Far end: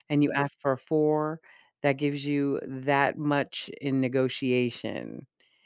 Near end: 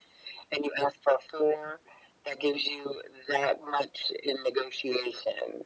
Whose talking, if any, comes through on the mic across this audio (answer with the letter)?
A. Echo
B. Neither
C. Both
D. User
A